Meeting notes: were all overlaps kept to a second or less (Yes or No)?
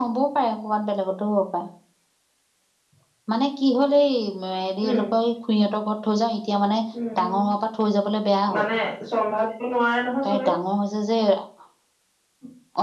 Yes